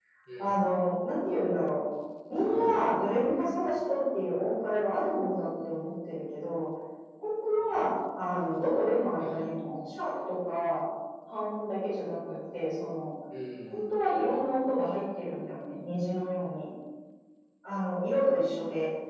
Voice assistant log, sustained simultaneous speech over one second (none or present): none